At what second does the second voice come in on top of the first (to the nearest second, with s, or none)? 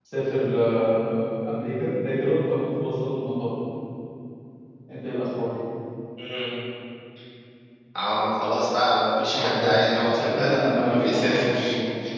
9 s